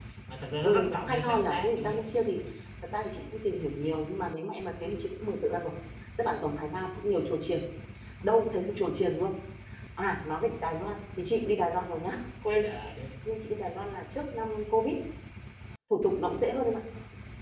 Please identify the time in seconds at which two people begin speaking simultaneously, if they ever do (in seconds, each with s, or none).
0.6 s